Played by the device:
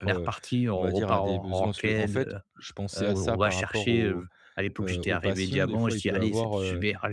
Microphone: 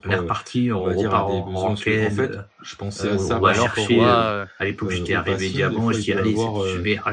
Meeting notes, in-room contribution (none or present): present